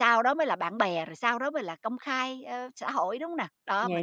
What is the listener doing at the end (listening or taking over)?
taking over